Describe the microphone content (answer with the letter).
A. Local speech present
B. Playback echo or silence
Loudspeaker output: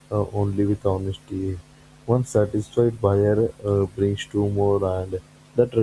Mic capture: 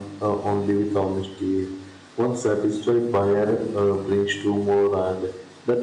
B